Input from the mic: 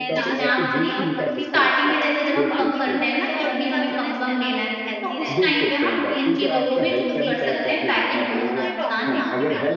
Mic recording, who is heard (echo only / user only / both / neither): both